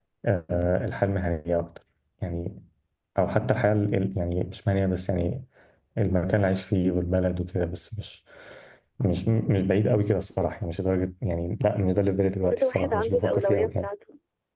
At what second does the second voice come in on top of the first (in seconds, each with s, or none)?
12.5 s